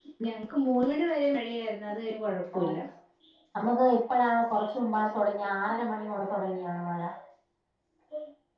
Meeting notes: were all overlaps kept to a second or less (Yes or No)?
Yes